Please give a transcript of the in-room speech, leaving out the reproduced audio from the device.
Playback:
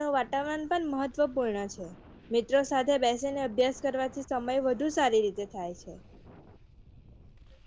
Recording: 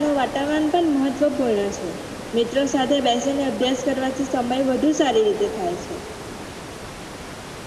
none

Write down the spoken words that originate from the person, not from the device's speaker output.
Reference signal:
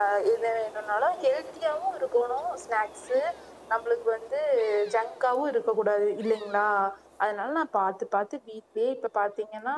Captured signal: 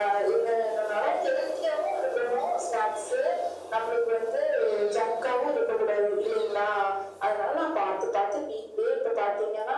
none

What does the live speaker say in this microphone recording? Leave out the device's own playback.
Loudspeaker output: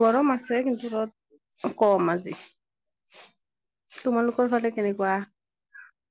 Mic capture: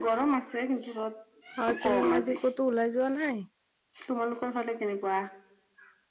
হয় তুমি আজি ক'তো ওলাই যোৱা নাই

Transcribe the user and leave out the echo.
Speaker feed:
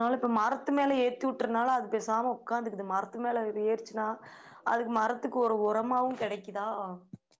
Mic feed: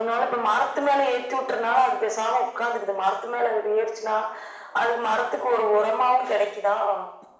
none

